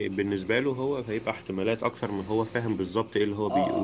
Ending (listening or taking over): taking over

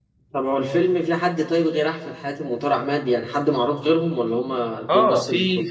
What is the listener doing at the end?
taking over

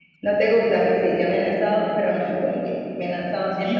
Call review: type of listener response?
taking over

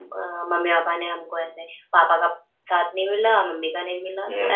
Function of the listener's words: taking over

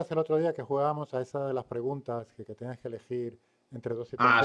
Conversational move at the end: taking over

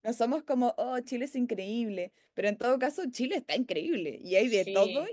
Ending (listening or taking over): listening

